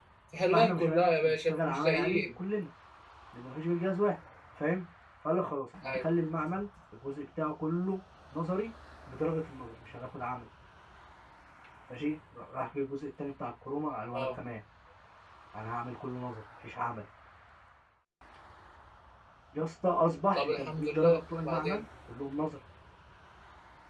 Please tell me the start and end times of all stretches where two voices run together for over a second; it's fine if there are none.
0.5-2.2, 20.3-21.8

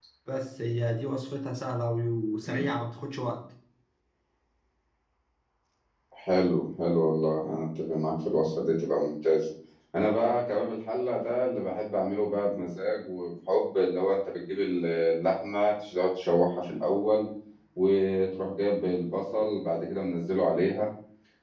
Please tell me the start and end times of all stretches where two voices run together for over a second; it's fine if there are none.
none

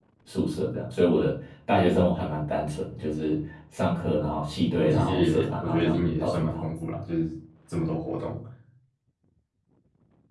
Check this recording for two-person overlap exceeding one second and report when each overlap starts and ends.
4.8-6.6

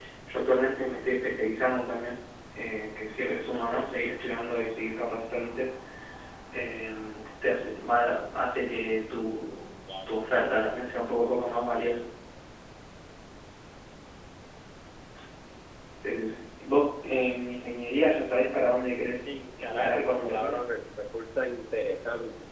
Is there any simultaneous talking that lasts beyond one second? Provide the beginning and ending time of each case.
19.2-20.6

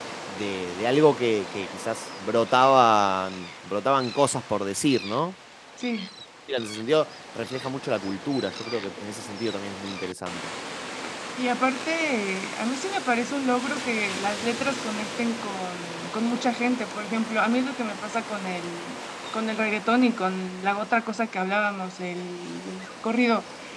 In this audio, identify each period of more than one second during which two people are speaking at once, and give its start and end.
none

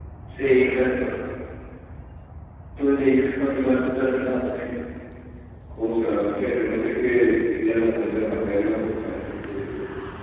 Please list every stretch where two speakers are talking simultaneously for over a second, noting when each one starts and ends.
none

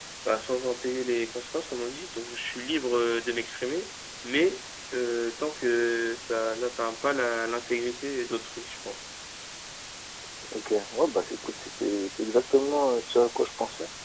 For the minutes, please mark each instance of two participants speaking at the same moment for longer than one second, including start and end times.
none

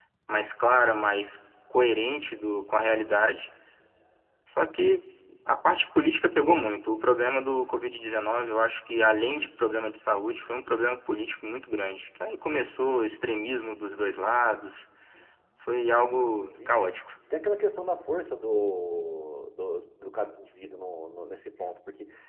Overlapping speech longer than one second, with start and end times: none

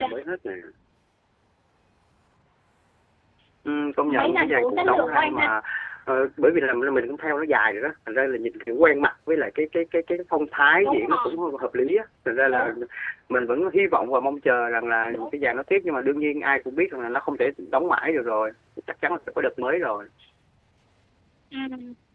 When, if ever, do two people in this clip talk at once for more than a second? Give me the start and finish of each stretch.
4.1-5.5

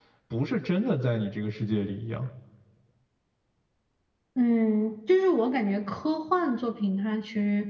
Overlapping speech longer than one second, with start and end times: none

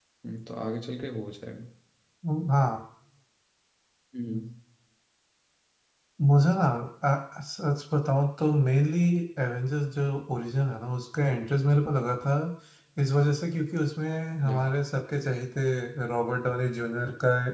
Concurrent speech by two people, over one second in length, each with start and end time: none

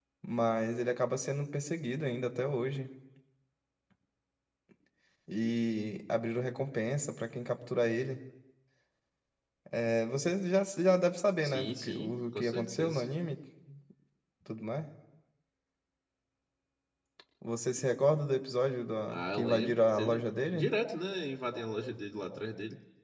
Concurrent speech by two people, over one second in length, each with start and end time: 11.4-13.0, 19.1-20.7

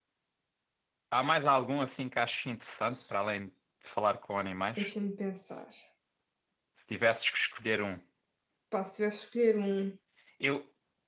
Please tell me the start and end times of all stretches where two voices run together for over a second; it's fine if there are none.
none

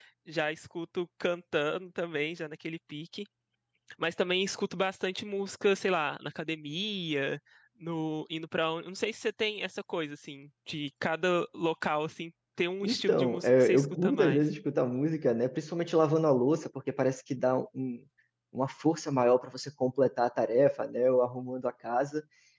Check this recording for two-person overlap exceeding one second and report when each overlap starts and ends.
12.8-14.4

